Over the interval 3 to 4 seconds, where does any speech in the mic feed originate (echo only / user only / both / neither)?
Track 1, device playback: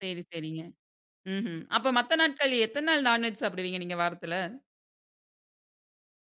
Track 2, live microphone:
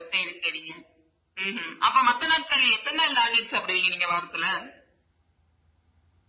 echo only